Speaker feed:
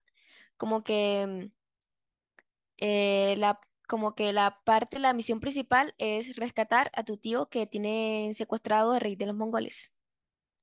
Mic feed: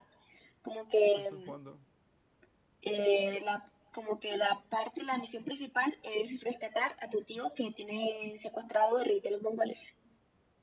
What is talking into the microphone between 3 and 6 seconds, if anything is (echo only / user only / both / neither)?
echo only